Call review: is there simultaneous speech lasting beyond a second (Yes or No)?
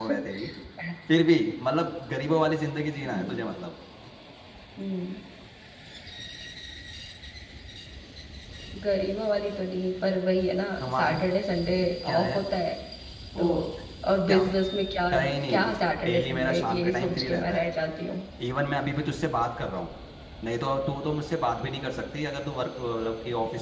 Yes